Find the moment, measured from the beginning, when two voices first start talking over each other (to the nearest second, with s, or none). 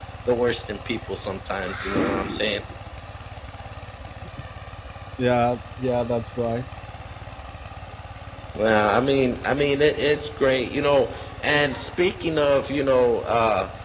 none